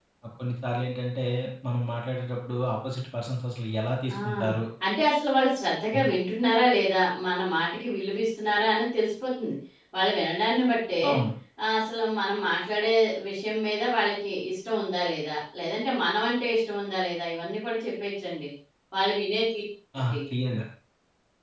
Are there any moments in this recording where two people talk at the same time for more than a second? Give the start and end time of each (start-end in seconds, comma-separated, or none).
none